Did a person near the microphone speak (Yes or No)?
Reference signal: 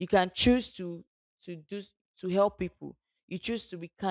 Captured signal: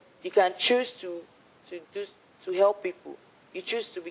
No